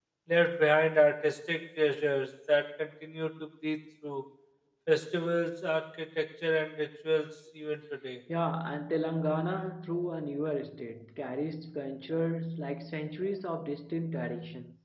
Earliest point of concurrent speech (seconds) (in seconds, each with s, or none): none